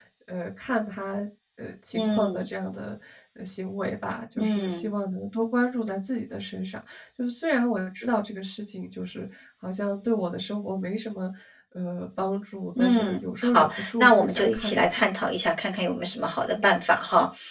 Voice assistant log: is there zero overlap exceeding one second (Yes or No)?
No